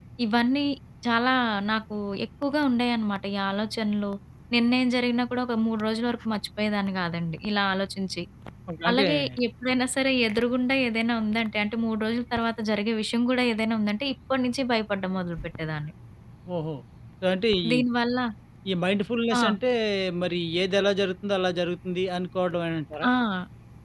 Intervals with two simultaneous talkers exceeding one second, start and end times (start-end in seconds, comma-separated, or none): none